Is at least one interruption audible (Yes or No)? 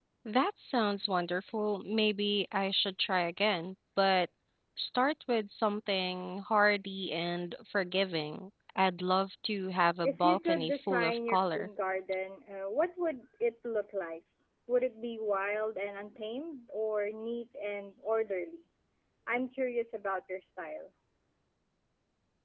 Yes